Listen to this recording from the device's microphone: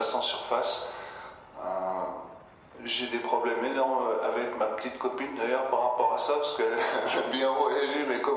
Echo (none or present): present